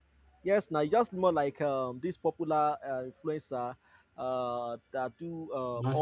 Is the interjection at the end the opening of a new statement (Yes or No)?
No